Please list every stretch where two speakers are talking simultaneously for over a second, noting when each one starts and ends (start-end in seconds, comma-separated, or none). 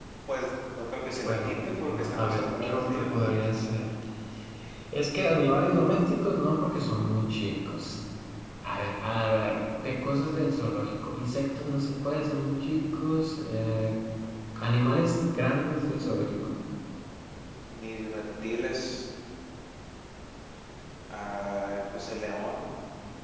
1.2-3.1